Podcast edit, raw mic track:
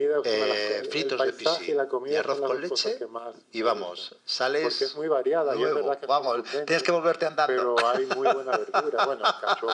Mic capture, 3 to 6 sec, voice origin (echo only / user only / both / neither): echo only